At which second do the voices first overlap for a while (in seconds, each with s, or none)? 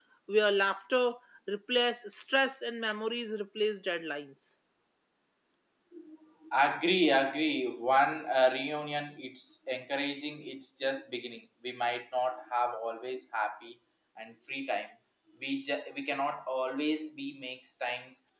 none